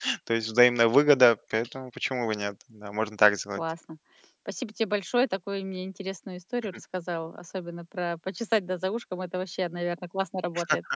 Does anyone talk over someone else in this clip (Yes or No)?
No